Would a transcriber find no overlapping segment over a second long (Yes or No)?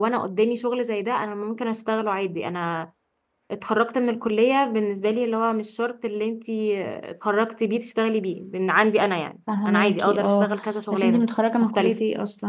No